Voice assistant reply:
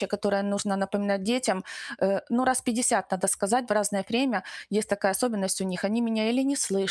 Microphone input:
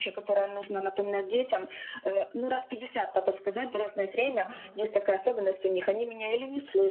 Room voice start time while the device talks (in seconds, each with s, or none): 4.3 s